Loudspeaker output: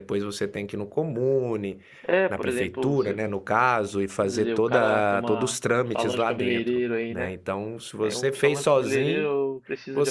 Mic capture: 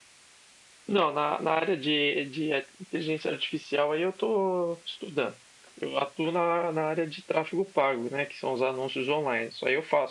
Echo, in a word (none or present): none